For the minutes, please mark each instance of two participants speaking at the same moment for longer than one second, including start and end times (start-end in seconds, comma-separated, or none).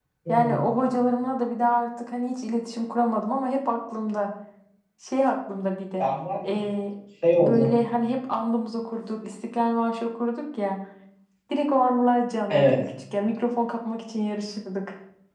none